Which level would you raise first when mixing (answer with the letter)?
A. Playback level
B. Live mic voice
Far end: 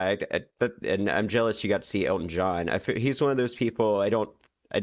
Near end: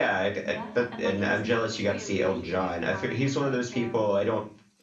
B